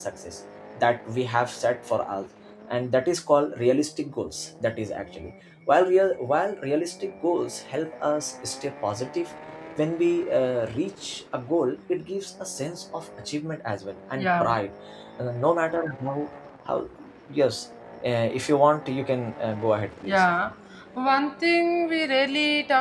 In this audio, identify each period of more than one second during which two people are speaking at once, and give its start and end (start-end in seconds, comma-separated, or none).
none